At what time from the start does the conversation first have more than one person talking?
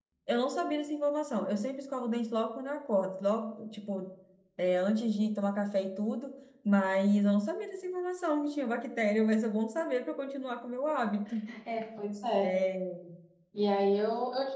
none

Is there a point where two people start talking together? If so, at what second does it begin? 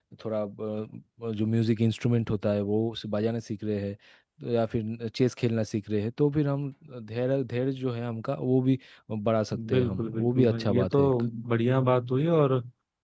10 s

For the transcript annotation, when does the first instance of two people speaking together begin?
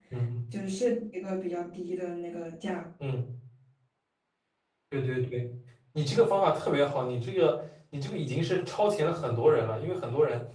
none

